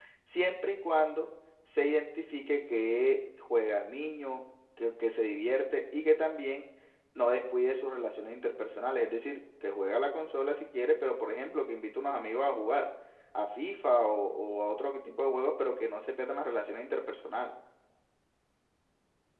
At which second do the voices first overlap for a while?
none

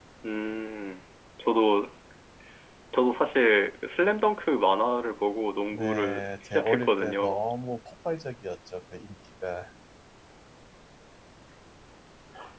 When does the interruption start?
5.7 s

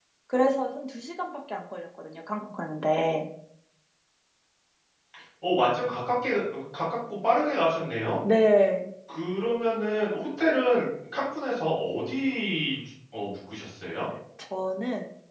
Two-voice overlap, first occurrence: none

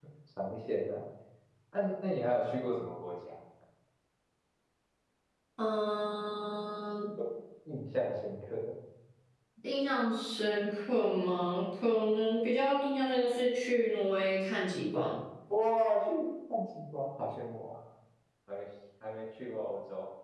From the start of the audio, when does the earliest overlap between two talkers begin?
none

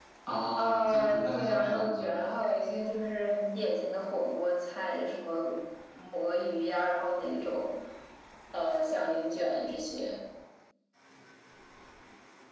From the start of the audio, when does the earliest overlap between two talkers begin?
0.6 s

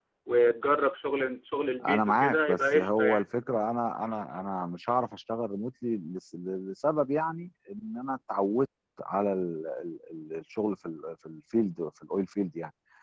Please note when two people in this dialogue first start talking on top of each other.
1.8 s

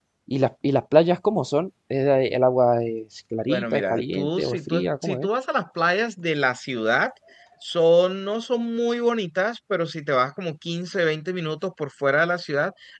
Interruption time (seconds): 3.5 s

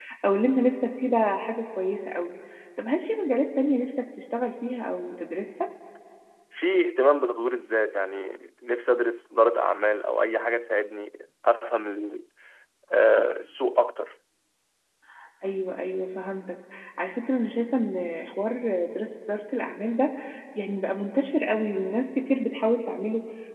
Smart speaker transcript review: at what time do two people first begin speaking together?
none

